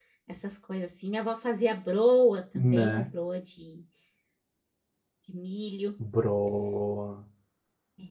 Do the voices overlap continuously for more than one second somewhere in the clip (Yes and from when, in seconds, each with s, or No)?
No